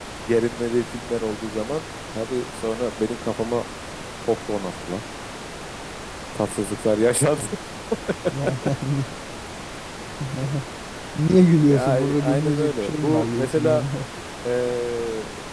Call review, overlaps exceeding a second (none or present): present